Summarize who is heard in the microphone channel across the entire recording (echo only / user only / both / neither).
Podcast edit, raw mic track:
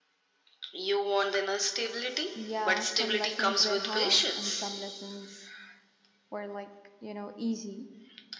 both